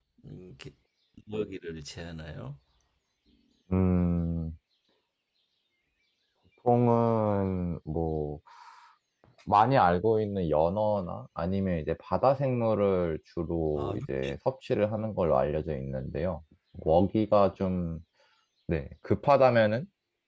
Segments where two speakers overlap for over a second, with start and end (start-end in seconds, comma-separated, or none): none